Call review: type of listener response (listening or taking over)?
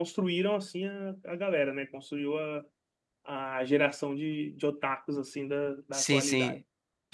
taking over